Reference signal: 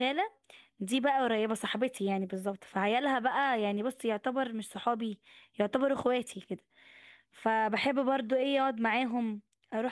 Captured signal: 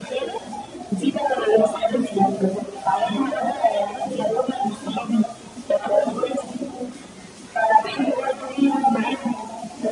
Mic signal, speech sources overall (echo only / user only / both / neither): echo only